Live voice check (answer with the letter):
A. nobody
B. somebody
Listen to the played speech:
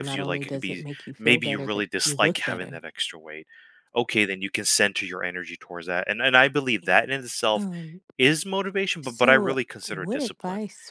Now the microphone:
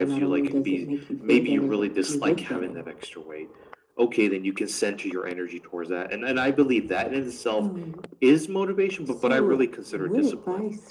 A